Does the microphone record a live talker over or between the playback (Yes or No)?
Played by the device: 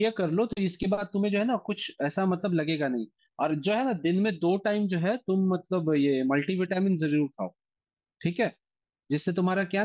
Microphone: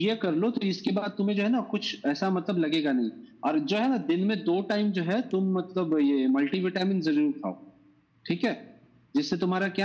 No